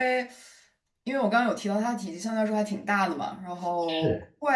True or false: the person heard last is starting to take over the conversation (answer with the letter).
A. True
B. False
B